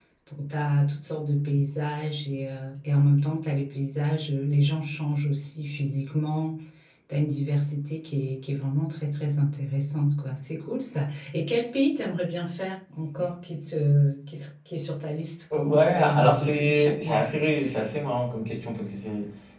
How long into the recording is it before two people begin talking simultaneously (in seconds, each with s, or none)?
15.5 s